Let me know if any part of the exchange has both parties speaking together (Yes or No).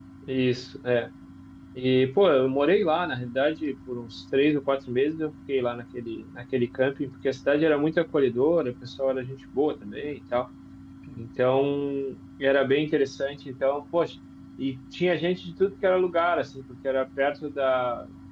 No